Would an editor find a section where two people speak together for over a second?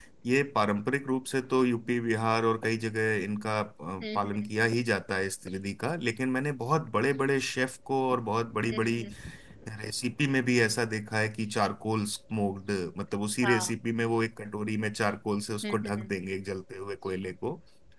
No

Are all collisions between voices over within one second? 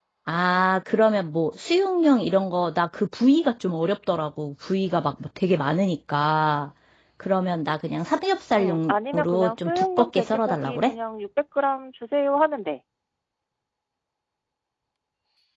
No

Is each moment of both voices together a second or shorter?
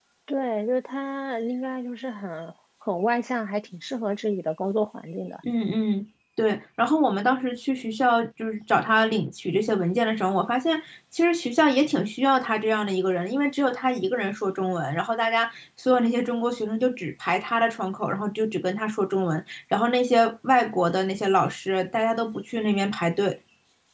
Yes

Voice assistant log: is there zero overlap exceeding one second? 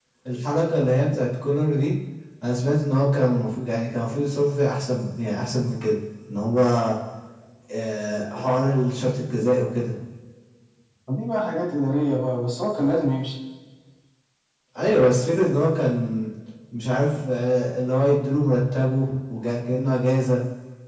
Yes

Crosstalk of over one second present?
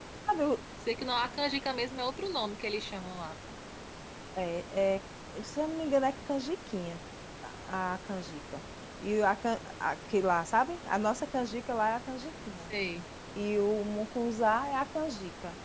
No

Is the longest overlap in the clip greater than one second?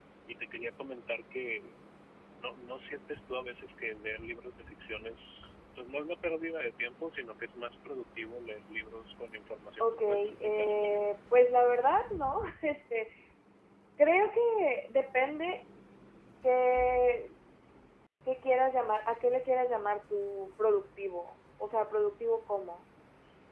Yes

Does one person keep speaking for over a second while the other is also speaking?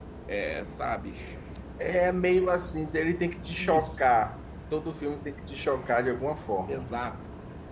No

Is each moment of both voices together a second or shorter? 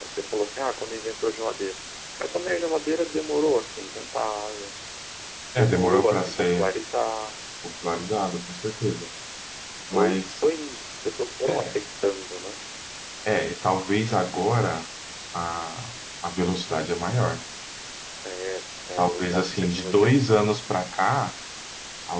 No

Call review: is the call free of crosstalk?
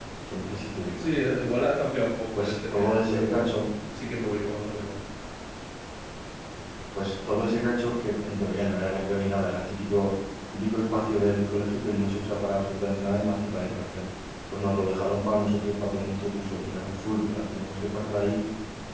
No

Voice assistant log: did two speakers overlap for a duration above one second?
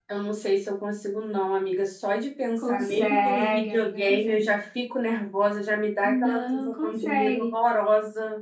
Yes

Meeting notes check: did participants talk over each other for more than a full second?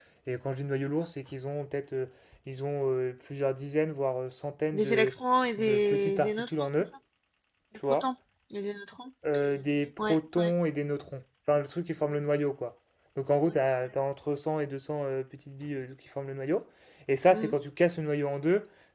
Yes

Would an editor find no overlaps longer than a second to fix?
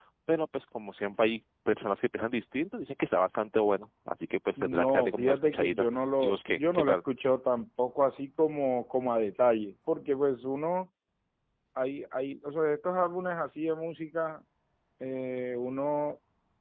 No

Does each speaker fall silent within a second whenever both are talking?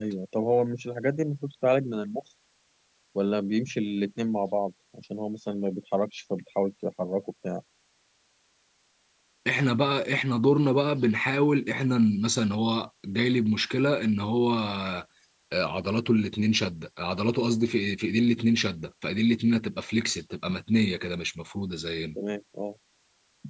Yes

